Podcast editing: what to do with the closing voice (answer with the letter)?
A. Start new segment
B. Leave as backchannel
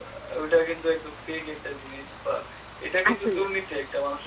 B